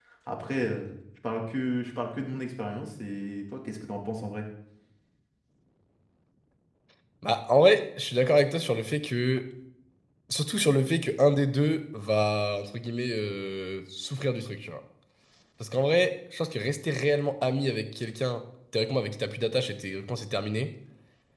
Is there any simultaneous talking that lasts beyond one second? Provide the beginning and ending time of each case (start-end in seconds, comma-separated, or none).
none